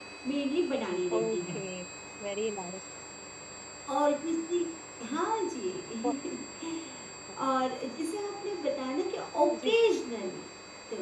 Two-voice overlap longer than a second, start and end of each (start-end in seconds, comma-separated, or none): none